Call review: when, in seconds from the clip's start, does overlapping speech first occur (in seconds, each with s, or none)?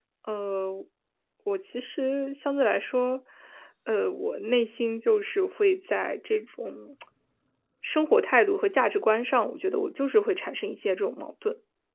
none